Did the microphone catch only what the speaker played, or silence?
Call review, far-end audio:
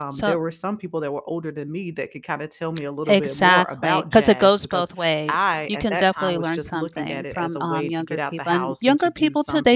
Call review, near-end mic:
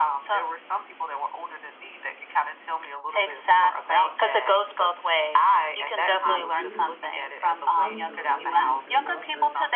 No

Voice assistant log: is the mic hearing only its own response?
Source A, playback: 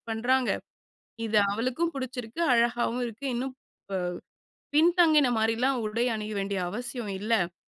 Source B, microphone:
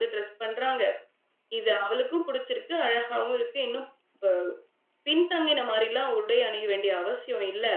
Yes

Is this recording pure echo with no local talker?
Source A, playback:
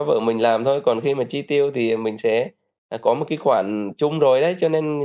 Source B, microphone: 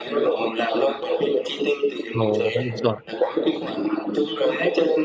No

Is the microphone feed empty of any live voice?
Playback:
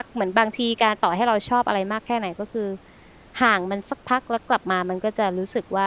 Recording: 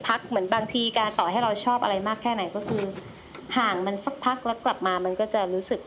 Yes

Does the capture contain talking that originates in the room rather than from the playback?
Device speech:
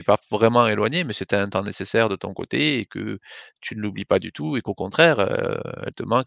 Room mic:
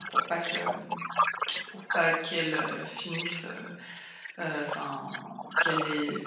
Yes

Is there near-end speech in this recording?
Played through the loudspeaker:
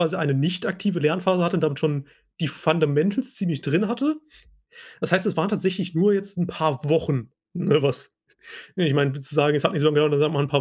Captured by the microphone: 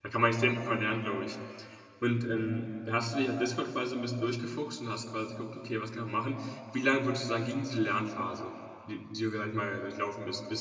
Yes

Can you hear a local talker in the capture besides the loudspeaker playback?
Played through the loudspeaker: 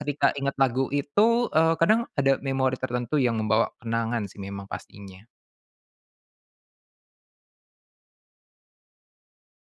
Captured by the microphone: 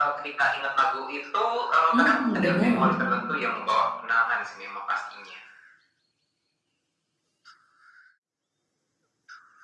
Yes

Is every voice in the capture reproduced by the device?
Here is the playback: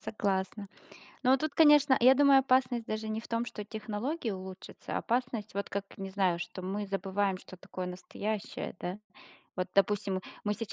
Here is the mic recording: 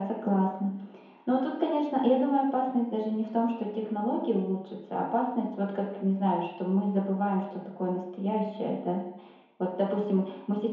Yes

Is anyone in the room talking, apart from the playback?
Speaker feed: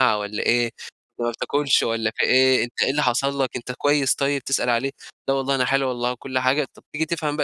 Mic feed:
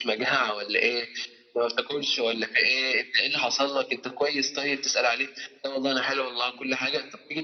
No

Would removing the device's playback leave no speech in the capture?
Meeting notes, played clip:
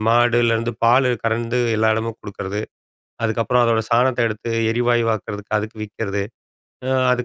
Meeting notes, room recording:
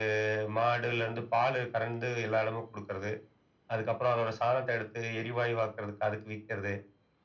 Yes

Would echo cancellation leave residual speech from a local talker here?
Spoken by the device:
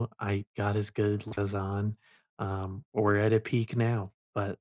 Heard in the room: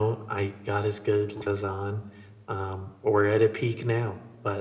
No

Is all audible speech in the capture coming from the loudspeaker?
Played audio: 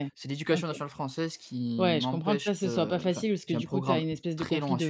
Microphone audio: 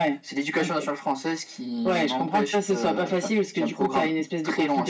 Yes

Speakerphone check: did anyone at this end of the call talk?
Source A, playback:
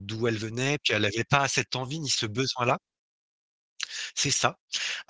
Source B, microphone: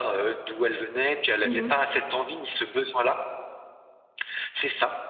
Yes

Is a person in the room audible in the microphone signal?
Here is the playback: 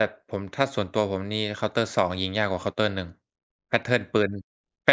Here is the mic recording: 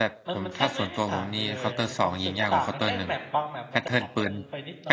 Yes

